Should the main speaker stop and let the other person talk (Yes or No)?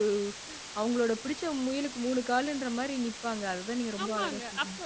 Yes